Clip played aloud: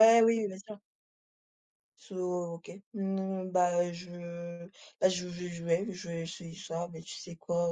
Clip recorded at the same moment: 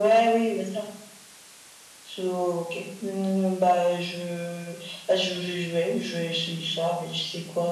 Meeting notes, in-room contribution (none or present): none